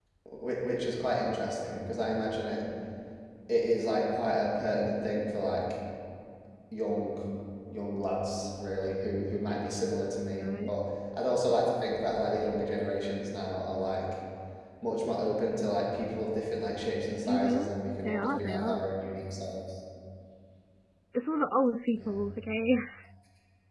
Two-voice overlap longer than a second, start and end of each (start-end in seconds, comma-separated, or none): 17.3-18.8